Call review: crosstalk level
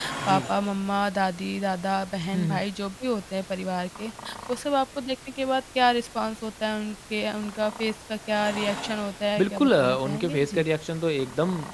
present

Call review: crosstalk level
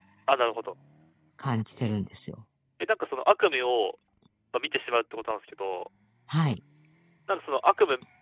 none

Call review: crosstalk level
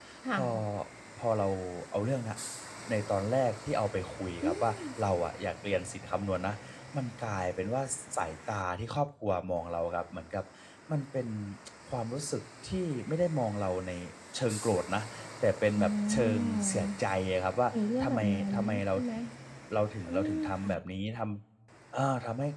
present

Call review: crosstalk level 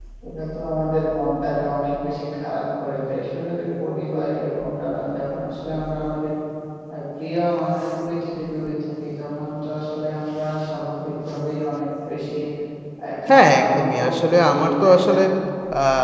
present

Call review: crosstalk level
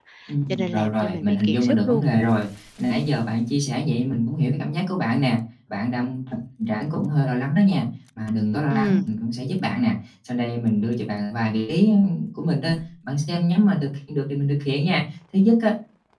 present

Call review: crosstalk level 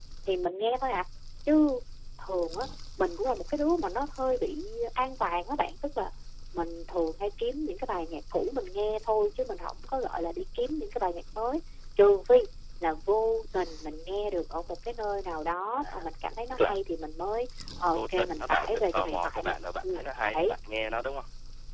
present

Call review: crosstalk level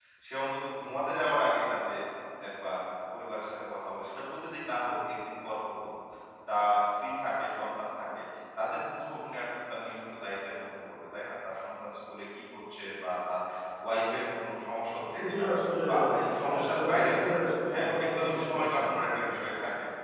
present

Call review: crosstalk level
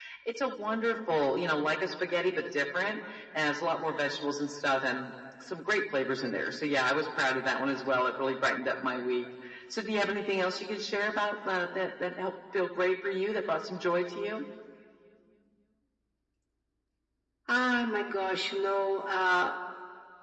none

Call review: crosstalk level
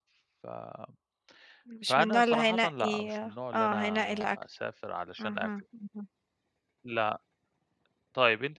present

